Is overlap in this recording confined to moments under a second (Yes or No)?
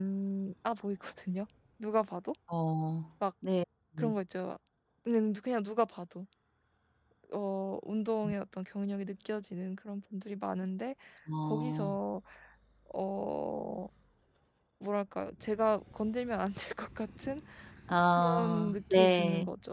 No